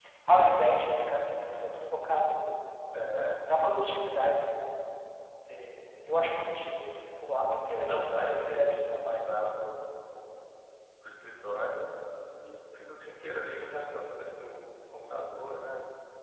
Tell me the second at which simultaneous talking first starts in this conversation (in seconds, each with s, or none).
7.8 s